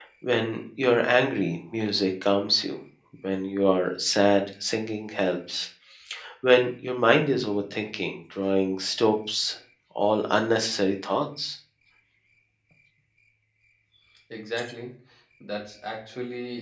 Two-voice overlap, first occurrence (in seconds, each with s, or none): none